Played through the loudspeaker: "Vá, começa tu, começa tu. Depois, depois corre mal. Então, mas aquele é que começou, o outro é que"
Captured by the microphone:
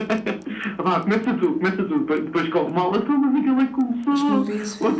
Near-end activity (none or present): present